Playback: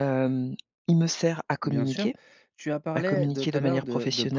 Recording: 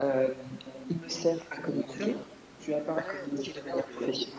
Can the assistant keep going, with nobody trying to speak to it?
Yes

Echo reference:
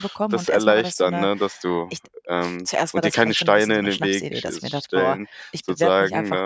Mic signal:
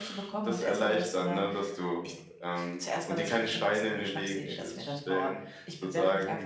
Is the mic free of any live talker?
Yes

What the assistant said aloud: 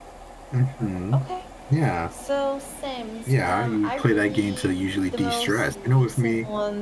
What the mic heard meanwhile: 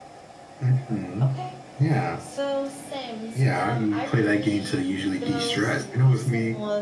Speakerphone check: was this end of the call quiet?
Yes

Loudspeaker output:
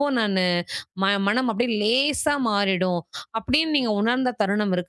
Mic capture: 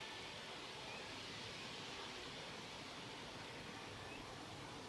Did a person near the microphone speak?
No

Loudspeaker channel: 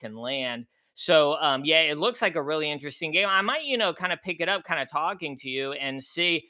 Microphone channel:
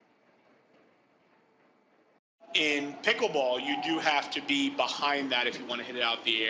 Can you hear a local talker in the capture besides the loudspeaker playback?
Yes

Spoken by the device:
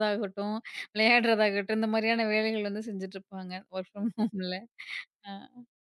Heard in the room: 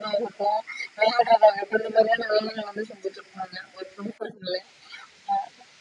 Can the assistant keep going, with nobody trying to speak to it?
Yes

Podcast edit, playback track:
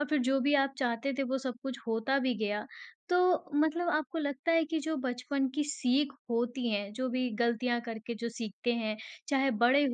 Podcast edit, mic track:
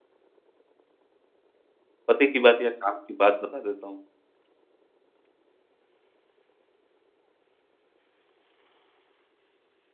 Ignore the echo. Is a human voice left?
Yes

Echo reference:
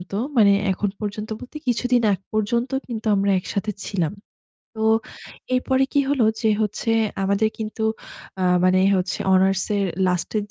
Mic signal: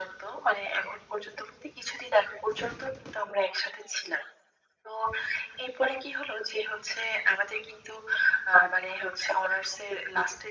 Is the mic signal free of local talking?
Yes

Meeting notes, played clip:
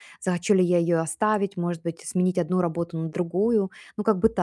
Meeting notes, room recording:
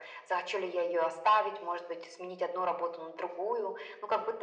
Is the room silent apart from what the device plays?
Yes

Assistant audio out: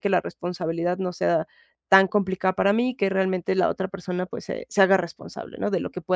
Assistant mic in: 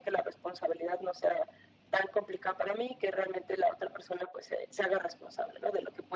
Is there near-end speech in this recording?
No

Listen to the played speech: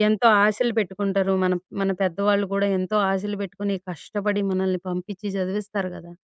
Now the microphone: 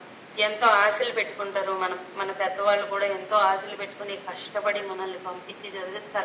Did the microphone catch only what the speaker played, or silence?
Yes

